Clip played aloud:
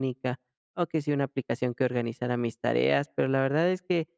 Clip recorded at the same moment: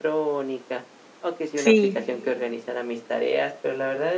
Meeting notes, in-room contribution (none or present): present